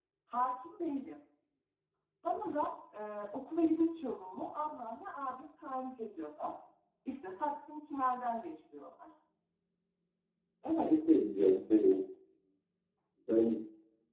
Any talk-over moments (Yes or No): No